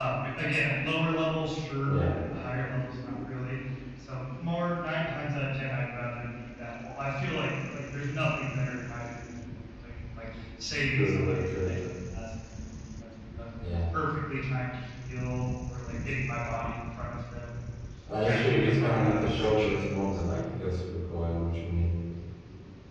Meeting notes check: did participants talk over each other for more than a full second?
Yes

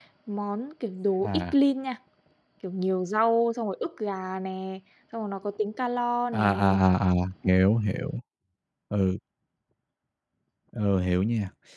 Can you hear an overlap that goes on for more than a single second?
No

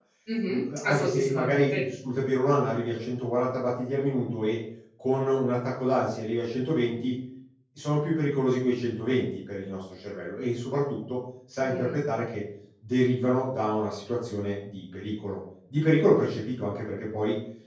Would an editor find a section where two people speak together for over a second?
Yes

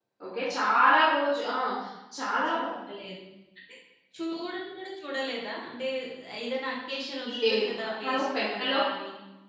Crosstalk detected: Yes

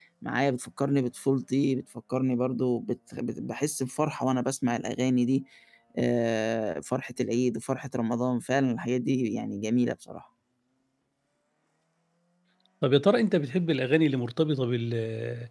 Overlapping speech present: No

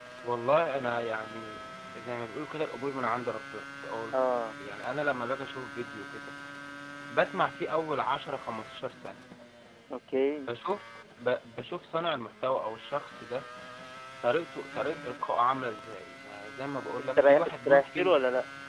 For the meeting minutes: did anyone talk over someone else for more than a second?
Yes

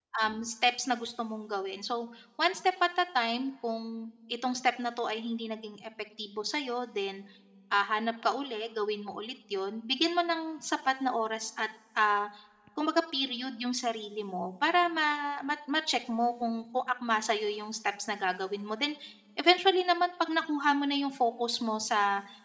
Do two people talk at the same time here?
No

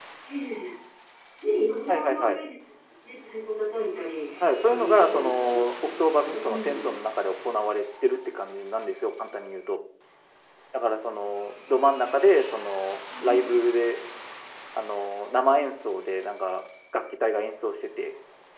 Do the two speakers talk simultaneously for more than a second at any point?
Yes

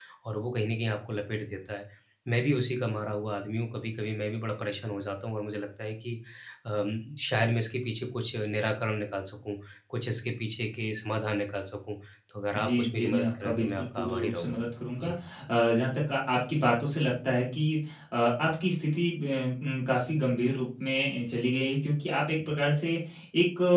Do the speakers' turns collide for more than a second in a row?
Yes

